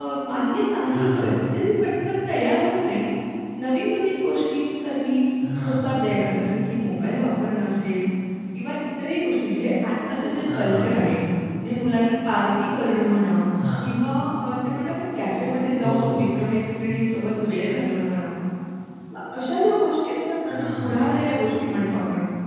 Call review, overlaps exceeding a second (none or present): none